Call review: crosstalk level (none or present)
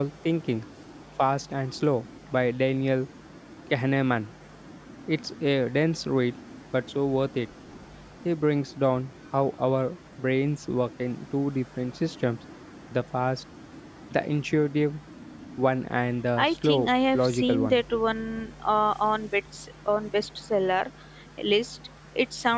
present